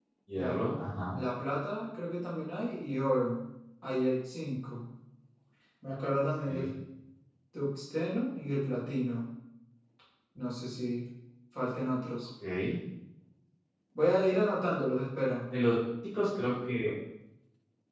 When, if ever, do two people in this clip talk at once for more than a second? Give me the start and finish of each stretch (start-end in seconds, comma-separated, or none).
none